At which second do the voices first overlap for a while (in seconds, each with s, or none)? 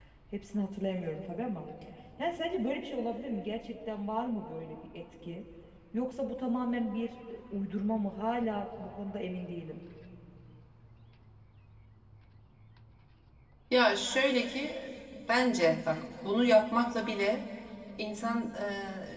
none